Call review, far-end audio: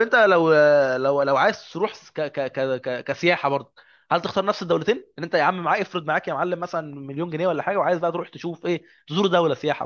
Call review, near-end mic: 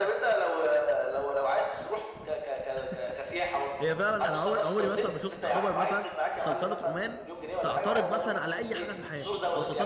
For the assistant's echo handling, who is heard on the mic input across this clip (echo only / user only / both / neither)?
both